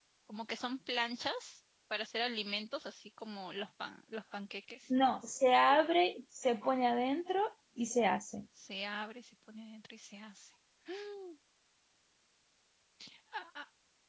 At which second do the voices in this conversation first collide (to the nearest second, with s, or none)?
none